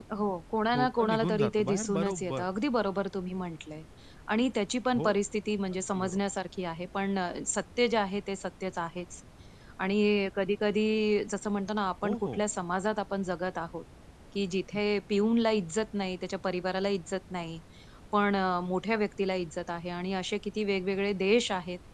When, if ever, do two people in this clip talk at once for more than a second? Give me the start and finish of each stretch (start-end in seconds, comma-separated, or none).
0.7-2.5